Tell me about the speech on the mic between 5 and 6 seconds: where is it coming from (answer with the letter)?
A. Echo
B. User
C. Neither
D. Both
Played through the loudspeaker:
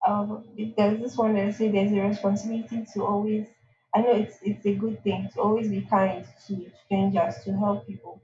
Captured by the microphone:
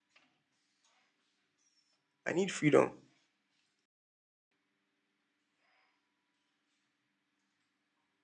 C